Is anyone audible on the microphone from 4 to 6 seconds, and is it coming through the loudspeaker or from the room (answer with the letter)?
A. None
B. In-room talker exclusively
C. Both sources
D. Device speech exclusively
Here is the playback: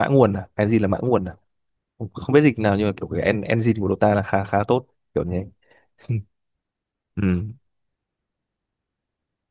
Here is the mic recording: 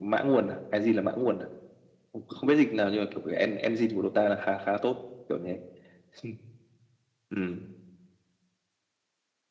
D